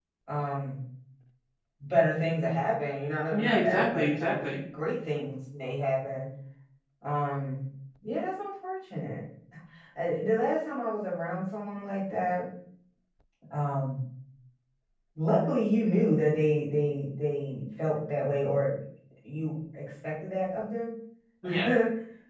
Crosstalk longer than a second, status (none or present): present